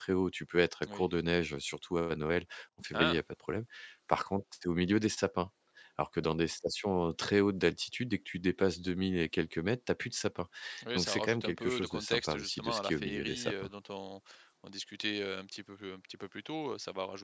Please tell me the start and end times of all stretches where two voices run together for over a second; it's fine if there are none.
10.9-13.7

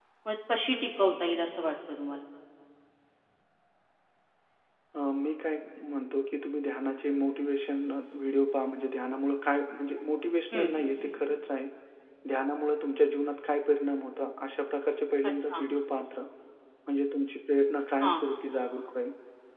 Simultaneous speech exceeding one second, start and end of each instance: none

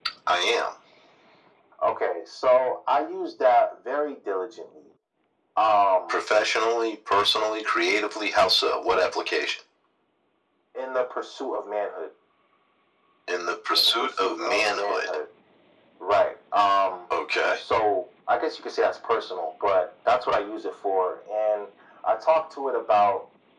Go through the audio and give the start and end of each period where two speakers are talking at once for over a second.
13.8-15.1

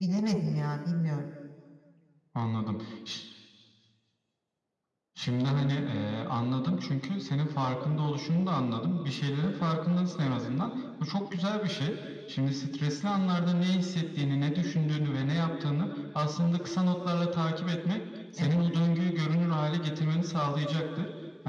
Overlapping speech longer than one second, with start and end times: none

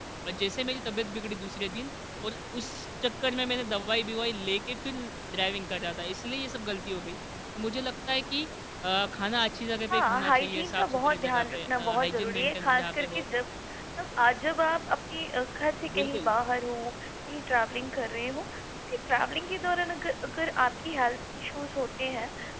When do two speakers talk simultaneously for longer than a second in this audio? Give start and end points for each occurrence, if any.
9.9-13.2

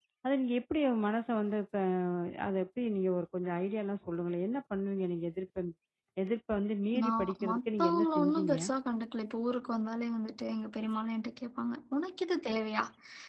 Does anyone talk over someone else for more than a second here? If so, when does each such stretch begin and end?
7.0-8.6

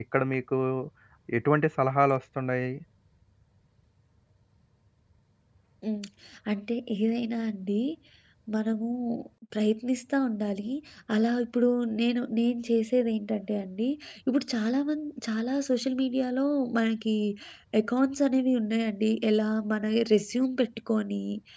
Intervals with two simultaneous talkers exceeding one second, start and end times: none

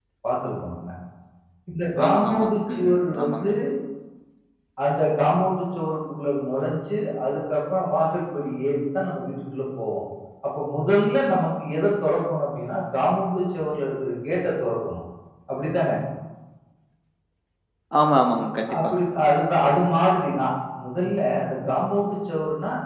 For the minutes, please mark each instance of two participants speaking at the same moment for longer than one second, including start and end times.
2.0-3.5

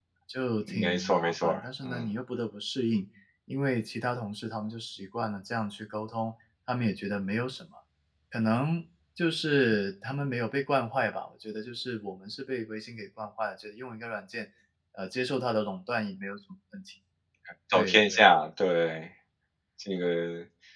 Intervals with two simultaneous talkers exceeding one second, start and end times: 0.7-2.1

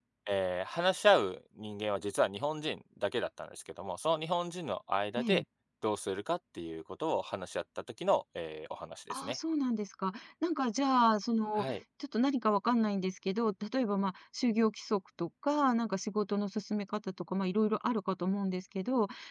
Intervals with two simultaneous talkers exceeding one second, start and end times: none

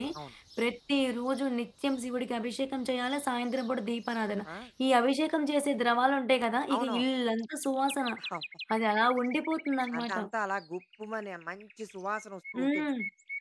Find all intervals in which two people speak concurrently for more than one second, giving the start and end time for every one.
none

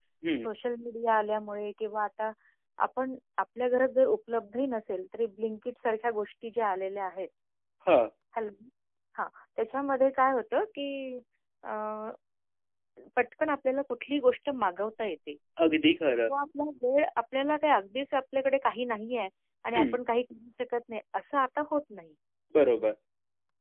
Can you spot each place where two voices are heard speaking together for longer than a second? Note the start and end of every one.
none

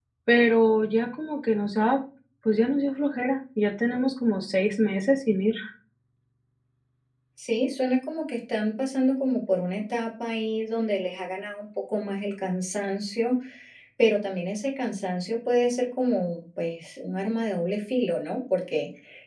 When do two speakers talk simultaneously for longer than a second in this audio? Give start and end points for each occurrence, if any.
none

